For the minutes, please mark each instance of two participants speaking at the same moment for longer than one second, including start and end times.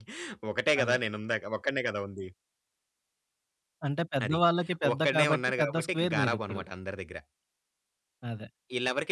4.9-6.6

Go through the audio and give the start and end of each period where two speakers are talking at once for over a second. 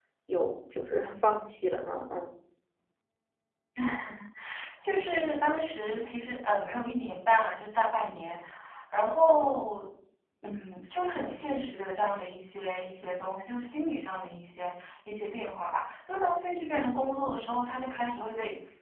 none

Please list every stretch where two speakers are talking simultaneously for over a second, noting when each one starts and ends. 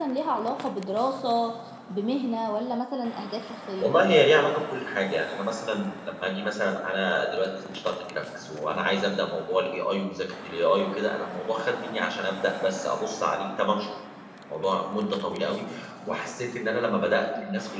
none

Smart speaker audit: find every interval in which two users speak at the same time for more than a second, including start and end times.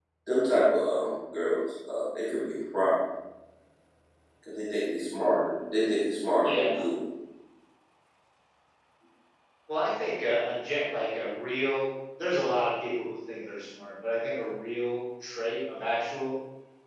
none

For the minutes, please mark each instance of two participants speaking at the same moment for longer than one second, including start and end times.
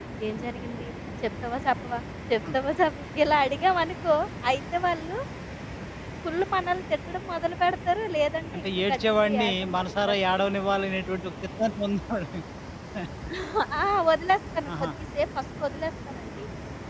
8.5-10.2

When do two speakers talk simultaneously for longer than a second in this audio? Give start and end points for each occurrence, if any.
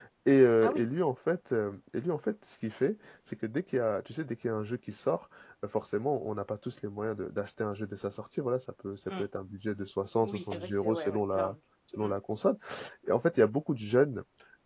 10.2-11.6

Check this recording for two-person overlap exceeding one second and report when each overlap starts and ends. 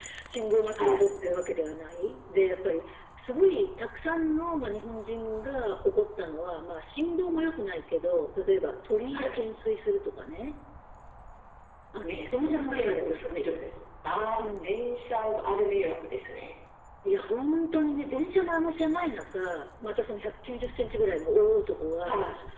12.1-13.3

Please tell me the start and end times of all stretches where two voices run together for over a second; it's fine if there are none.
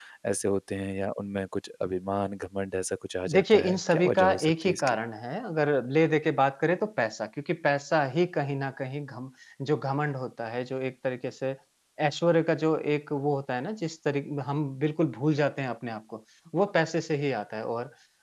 3.4-5.0

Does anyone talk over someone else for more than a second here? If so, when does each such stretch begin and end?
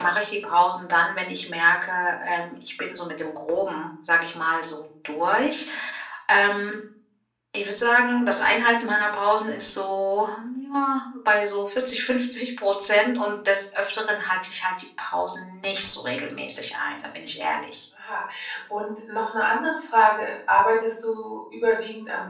none

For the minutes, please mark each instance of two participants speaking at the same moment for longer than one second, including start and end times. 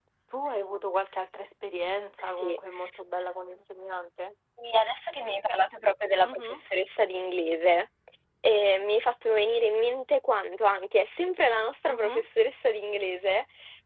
none

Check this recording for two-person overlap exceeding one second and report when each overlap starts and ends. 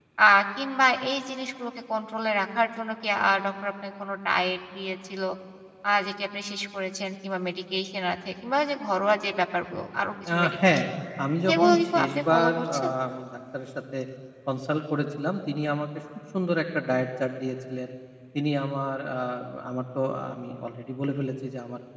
11.5-12.9

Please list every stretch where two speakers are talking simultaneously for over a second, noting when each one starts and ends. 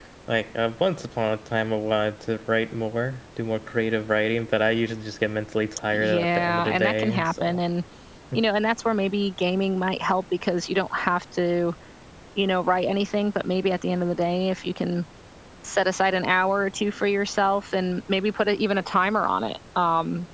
5.9-7.6

